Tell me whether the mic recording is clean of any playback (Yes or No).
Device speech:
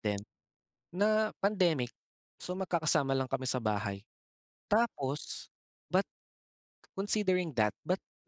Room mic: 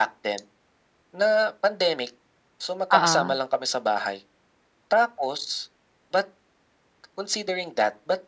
No